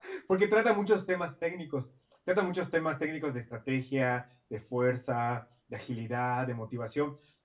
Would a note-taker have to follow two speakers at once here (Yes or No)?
No